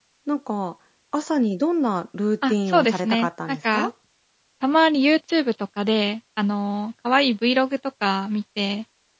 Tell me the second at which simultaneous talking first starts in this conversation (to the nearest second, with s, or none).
2 s